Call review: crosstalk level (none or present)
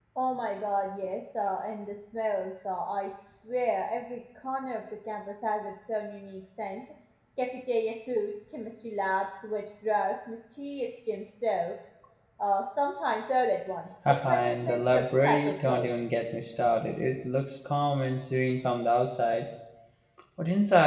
present